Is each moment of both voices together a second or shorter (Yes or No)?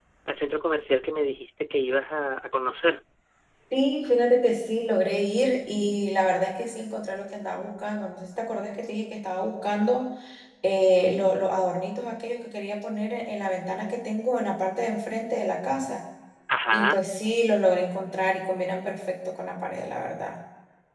Yes